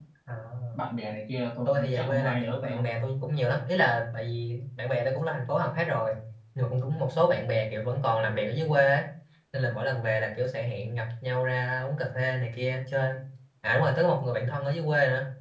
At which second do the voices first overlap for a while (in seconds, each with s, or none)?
1.6 s